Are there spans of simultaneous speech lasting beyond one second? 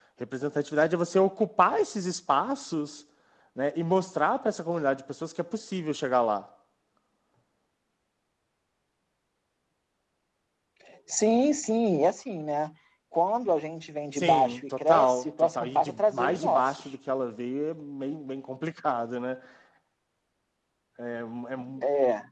Yes, from 14.2 s

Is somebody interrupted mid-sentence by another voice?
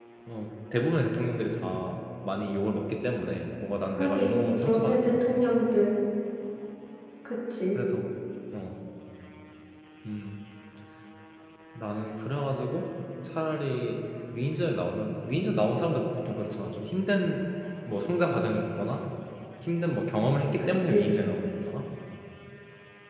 Yes, from 4.0 s

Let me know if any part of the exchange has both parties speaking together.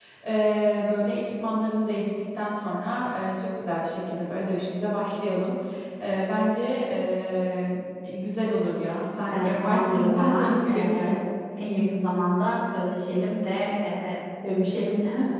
Yes, from 9.3 s

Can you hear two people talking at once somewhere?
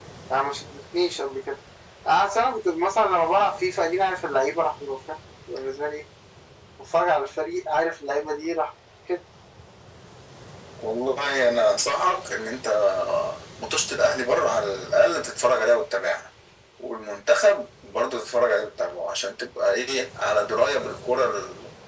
No

